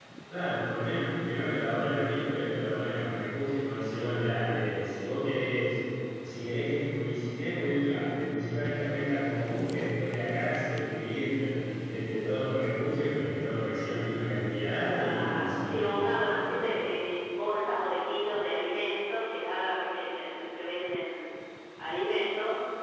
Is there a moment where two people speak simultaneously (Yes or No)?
Yes